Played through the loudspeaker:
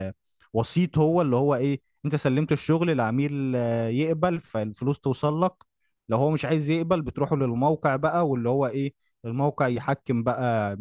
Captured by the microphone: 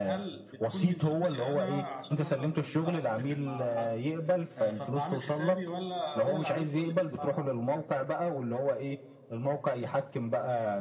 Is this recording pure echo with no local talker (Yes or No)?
No